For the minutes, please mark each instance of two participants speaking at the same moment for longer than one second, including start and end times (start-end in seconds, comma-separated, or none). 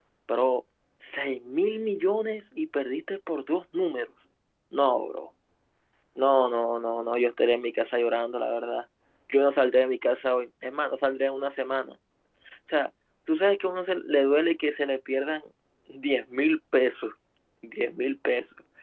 none